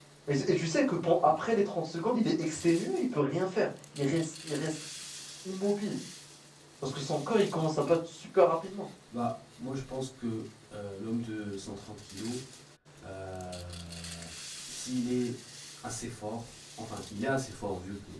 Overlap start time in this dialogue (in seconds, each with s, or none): none